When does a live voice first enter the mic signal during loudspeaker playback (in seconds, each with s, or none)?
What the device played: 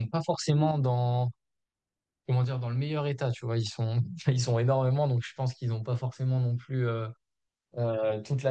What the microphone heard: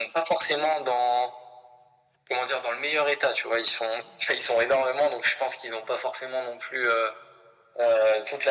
none